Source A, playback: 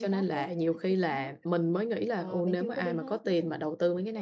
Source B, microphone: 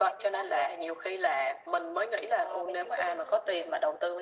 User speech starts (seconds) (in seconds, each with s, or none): none